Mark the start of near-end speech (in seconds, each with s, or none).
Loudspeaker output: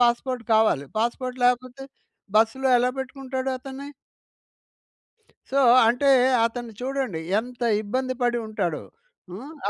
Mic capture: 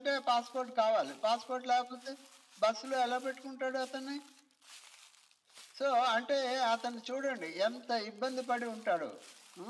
none